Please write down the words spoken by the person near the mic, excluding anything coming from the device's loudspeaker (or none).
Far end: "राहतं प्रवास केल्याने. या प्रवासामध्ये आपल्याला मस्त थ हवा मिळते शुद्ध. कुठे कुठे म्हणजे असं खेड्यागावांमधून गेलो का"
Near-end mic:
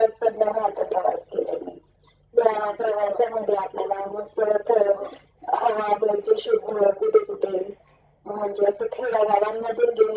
none